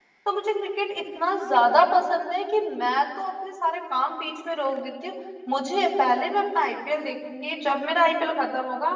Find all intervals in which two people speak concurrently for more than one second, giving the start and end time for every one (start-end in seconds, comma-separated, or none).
none